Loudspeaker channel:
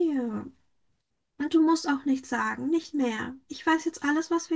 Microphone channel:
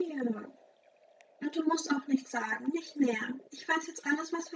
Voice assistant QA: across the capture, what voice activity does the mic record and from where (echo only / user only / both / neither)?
echo only